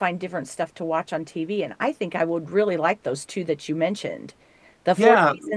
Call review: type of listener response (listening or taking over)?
listening